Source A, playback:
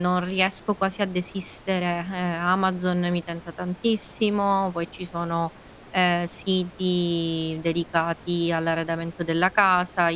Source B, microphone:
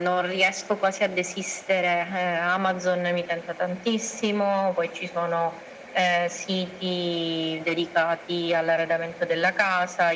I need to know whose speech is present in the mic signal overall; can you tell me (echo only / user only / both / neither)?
echo only